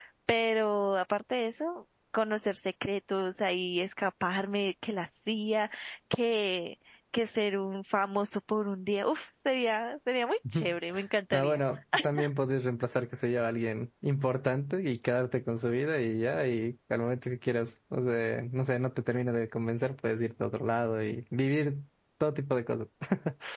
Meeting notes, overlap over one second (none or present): none